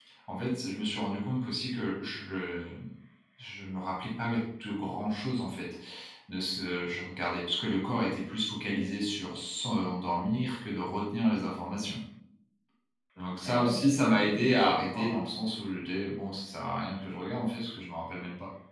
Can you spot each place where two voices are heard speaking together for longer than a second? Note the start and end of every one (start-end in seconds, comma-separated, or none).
13.4-15.1